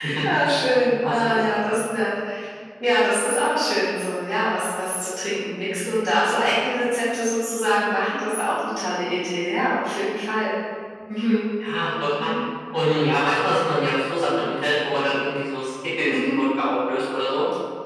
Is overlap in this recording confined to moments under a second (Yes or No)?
Yes